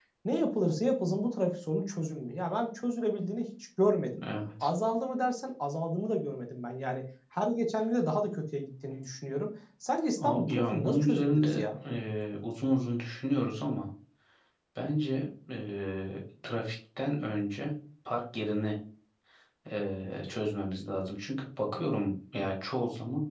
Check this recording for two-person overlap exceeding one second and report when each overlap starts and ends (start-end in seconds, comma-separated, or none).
10.2-11.6